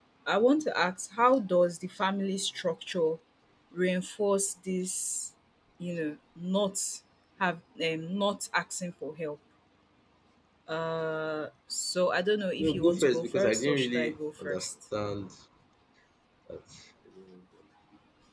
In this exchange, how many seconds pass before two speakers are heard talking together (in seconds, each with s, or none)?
12.6 s